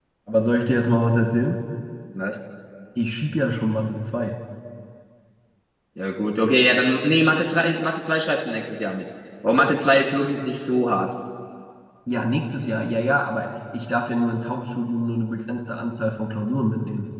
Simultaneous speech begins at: none

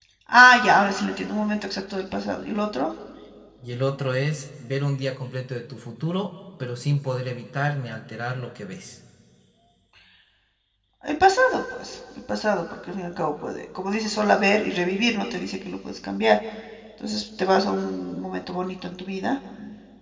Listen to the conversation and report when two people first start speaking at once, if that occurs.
none

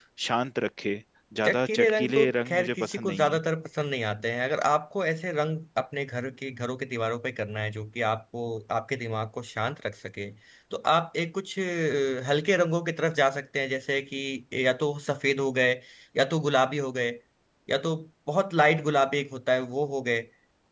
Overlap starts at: 1 s

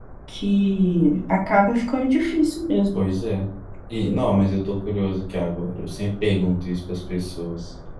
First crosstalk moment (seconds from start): none

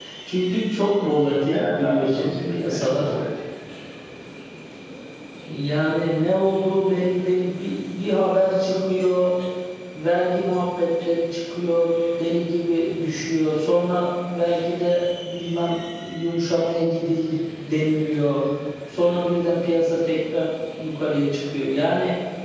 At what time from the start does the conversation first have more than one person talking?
2 s

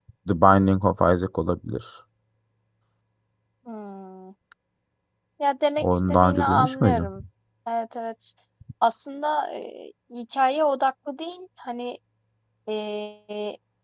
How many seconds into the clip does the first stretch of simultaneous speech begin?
6 s

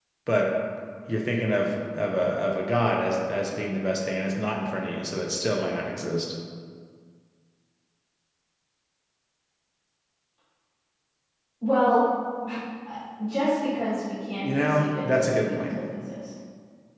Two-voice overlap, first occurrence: 14 s

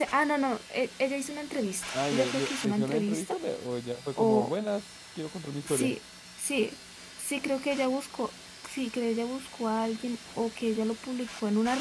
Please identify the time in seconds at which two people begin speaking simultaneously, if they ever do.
2 s

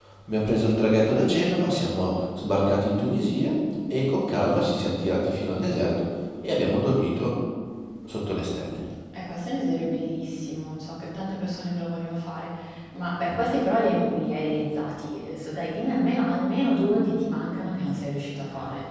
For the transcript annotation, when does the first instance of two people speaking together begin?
none

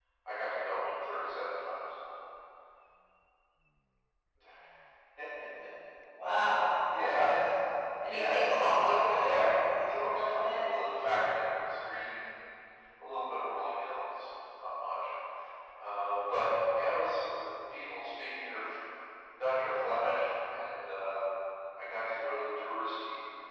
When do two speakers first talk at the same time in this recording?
8 s

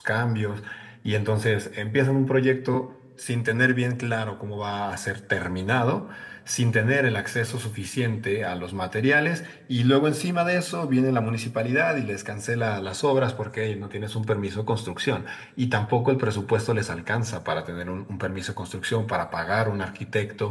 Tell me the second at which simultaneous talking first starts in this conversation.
none

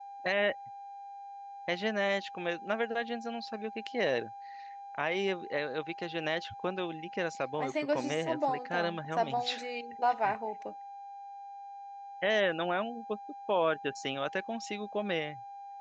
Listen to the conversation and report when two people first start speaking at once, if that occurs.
8 s

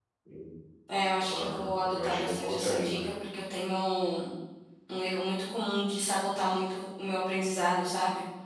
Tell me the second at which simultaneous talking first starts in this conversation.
1 s

